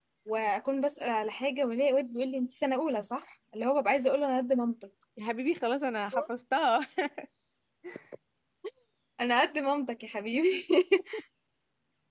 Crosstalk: none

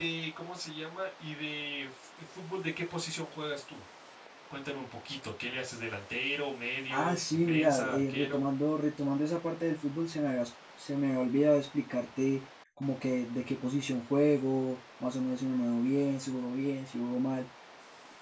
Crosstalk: present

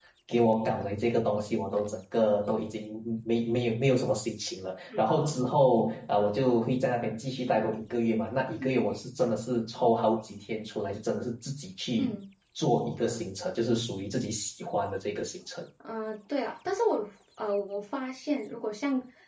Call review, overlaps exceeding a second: none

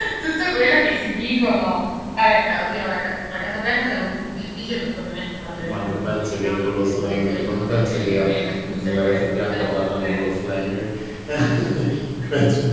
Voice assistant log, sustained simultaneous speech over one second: present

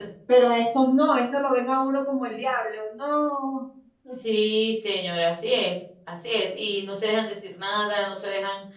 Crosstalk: none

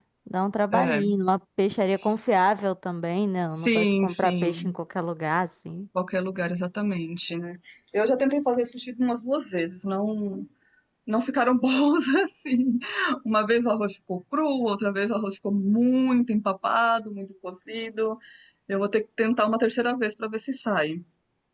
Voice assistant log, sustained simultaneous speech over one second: present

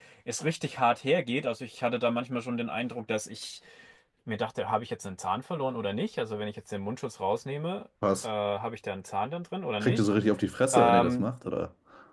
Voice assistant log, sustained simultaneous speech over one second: none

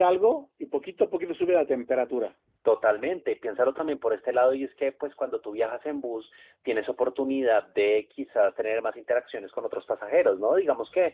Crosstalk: none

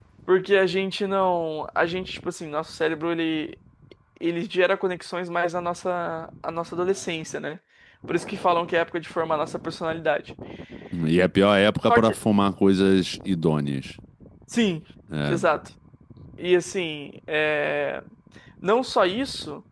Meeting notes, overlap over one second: none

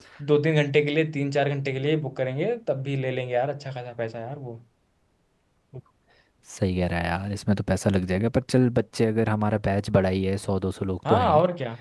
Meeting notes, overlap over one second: none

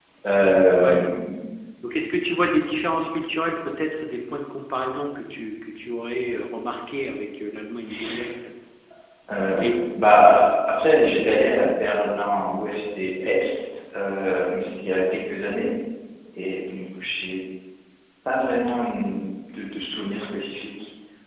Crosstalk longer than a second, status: none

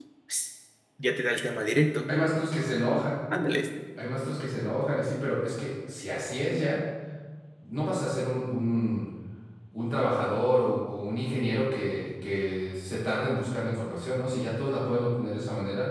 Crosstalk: none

